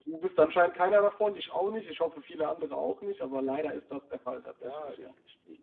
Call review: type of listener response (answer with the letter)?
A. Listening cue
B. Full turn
B